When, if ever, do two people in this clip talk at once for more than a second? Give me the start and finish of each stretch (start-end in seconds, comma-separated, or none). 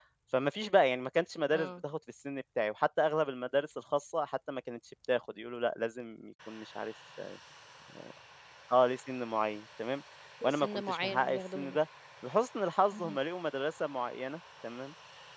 10.4-11.8